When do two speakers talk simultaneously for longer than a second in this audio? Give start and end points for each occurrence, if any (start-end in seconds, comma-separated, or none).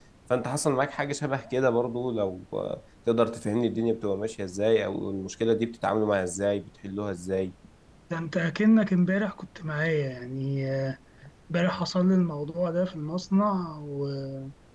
none